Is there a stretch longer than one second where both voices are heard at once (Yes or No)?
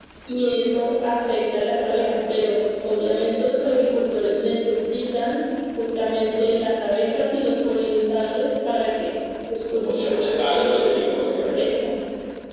Yes